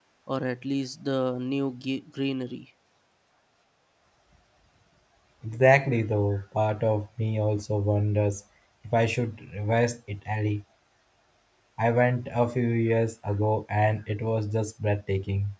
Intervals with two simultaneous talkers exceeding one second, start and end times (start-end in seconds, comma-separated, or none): none